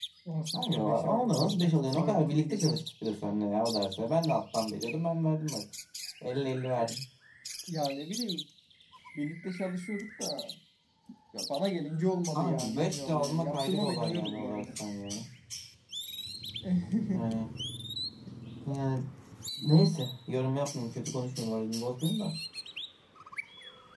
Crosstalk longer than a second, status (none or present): present